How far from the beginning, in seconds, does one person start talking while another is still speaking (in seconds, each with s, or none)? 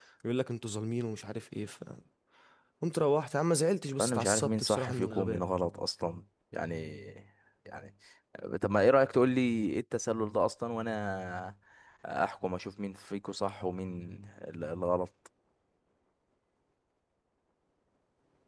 4.0 s